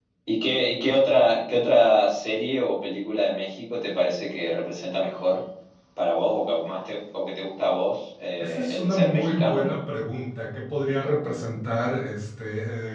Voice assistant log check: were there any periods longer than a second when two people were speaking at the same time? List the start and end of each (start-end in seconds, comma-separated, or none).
8.4-9.8